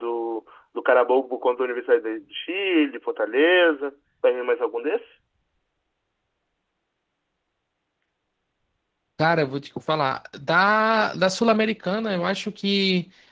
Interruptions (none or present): none